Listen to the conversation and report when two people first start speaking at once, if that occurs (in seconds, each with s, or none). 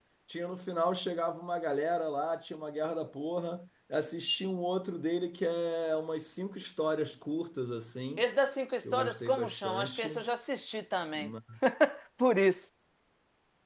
8.9 s